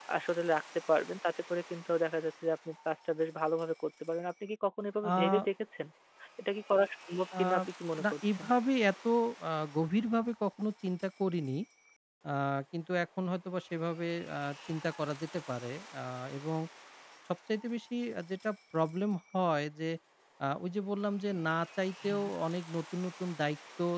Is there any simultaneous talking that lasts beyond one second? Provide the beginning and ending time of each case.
none

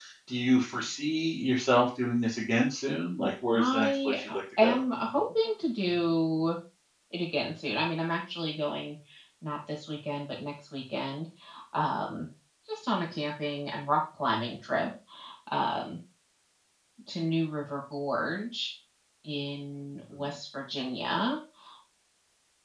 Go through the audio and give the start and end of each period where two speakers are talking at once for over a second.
3.5-4.8

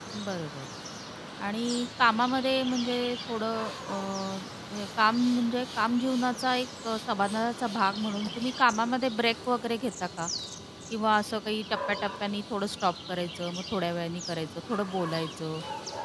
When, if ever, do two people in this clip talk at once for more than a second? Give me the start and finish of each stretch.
none

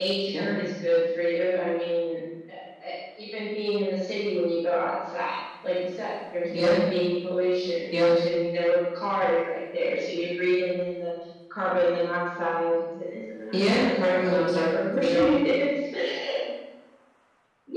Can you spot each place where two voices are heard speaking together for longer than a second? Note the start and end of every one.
13.5-15.3

